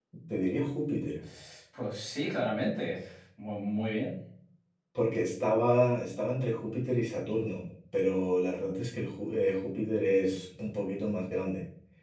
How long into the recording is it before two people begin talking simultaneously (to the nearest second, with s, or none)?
none